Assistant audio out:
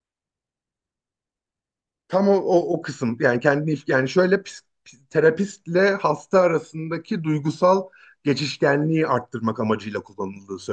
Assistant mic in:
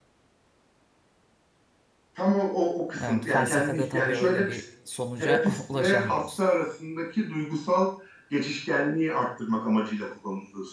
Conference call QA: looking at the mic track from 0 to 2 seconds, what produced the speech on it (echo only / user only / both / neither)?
neither